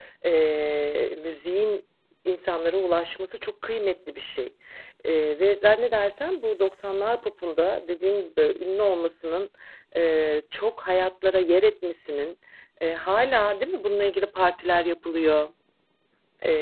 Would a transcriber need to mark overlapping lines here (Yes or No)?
No